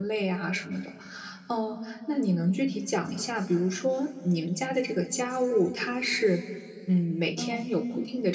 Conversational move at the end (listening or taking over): listening